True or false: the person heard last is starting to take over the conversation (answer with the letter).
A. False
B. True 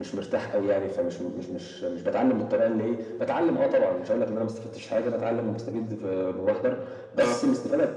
A